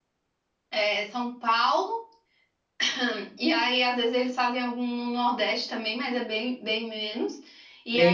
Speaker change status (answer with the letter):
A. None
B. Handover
A